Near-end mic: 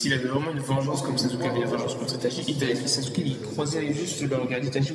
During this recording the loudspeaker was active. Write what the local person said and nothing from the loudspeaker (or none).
Donc je pense que le, moi, honnêtement, le fautif dans cette relation, je mettrais Kakashi, honnêtement.